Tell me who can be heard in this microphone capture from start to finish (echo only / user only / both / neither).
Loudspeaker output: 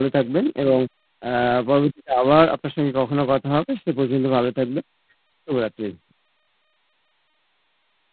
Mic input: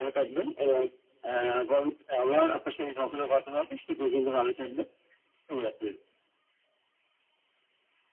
echo only